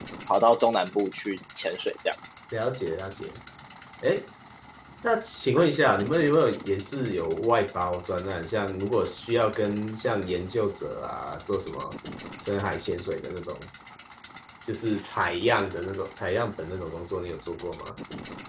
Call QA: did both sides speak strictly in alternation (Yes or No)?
Yes